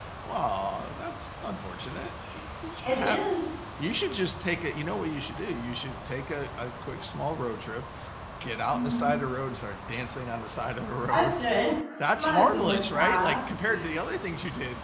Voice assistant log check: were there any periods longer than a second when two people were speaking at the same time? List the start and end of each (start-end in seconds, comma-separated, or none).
12.2-13.4